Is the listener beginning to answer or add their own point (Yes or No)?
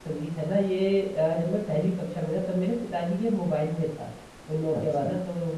No